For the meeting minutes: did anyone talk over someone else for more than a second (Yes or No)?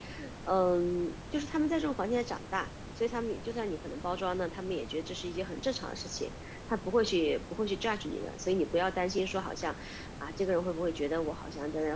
No